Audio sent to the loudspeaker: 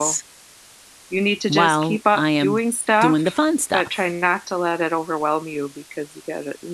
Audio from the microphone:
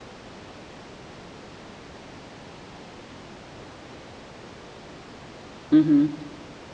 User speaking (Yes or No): Yes